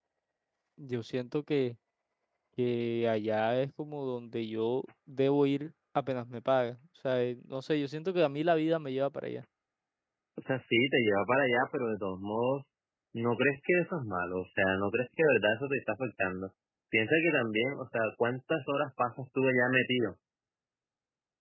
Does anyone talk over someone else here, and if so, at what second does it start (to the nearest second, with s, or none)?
none